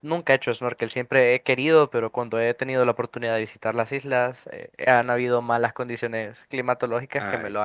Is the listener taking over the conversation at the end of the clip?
Yes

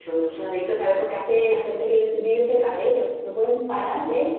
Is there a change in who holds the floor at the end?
No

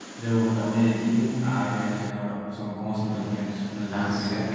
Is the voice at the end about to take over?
Yes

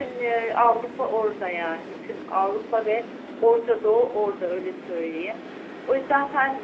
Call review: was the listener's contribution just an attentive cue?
Yes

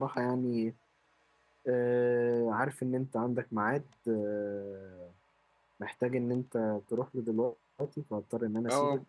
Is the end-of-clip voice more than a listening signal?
Yes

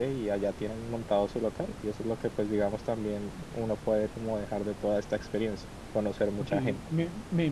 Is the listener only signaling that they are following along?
No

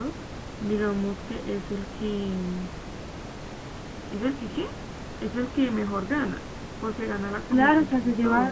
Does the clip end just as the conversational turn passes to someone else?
Yes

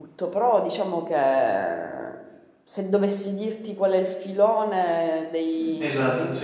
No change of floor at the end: Yes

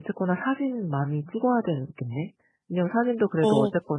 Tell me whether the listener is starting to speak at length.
No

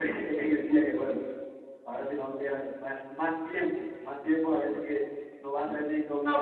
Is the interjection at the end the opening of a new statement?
Yes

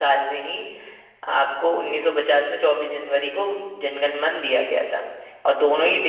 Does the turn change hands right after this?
No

